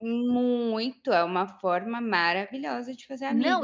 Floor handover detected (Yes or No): Yes